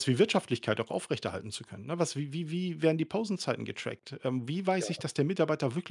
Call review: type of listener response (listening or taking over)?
listening